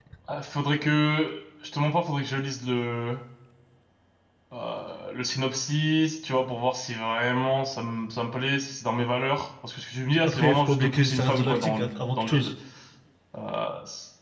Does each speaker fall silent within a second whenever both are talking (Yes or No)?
No